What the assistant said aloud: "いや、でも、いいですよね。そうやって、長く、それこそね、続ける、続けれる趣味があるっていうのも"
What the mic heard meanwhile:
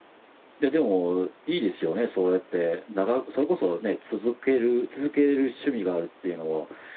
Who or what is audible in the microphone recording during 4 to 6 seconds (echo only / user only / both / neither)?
echo only